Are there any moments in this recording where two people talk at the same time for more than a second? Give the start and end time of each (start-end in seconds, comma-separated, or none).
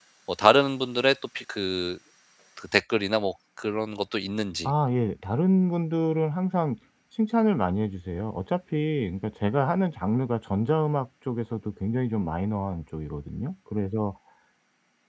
none